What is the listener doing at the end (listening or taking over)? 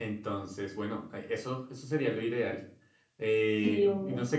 listening